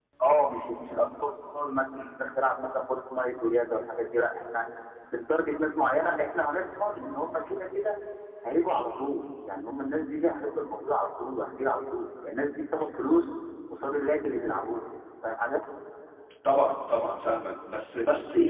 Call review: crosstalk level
none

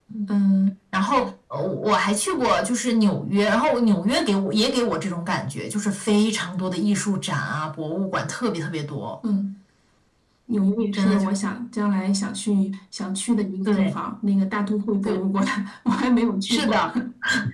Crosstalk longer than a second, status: none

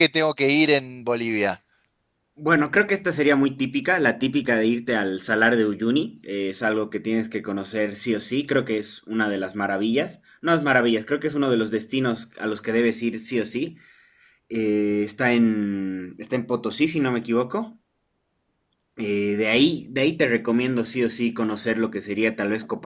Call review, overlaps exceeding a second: none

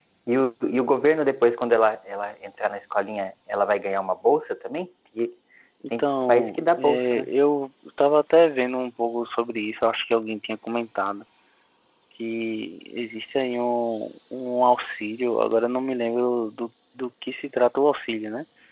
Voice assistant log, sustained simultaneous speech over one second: present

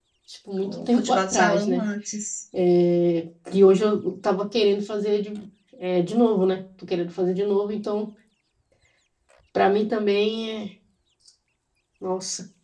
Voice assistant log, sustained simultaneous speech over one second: present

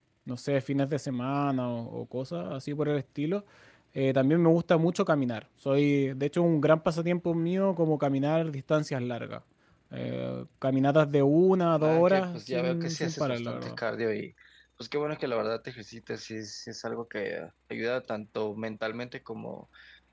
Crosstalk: present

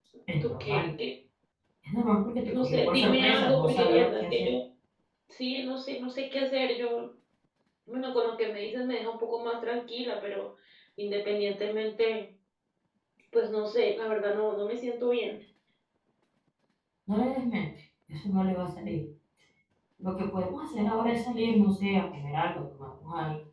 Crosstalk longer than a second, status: present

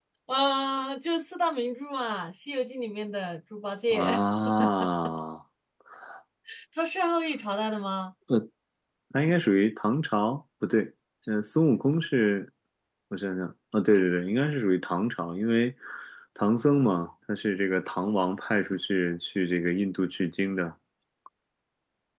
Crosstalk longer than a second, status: none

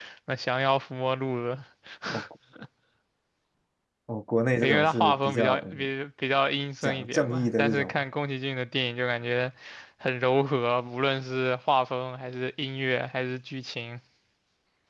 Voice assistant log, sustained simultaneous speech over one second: present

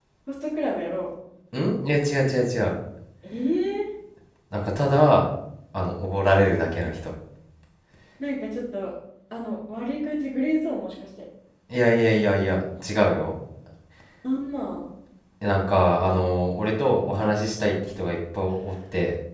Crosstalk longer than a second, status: none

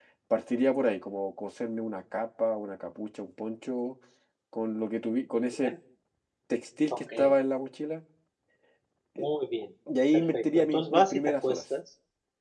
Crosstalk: present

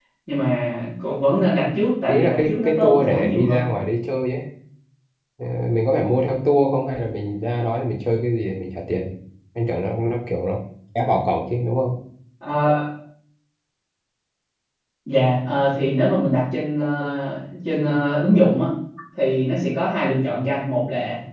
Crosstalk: present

